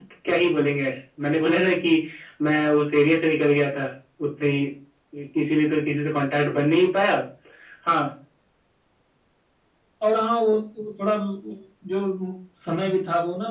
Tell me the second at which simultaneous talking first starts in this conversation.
none

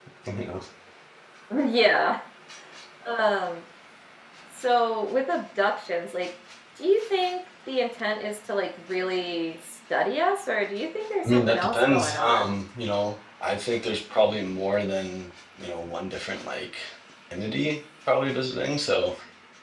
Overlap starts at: 11.2 s

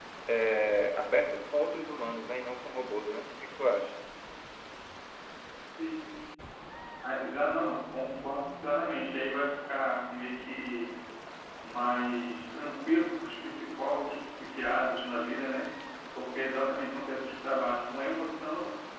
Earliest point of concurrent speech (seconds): none

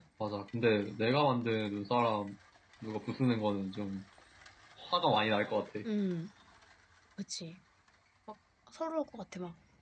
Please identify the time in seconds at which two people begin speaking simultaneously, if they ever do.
none

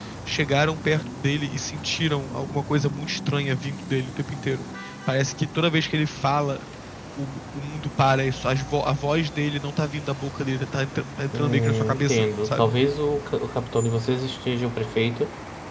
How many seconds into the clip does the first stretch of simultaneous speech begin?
11.3 s

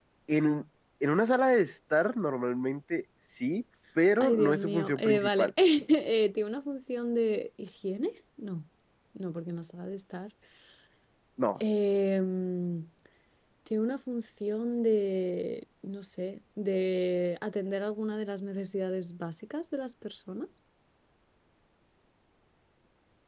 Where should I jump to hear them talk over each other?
4.2 s

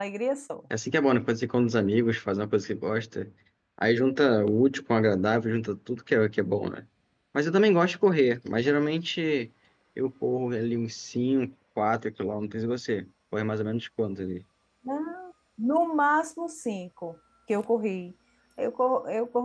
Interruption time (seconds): none

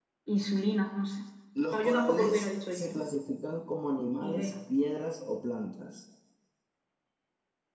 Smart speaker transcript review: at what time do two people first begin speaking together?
1.7 s

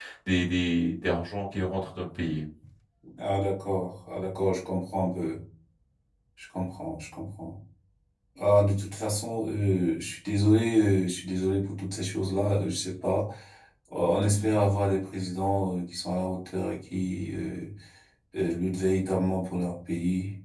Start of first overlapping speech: none

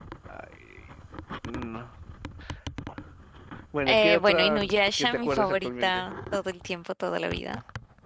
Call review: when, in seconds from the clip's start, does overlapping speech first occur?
3.9 s

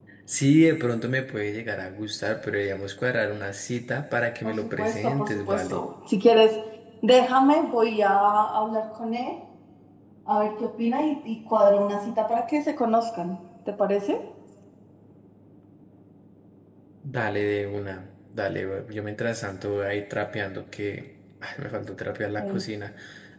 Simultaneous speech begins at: 4.4 s

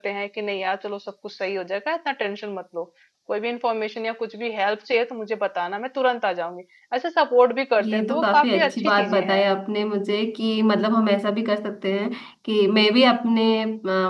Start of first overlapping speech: 7.8 s

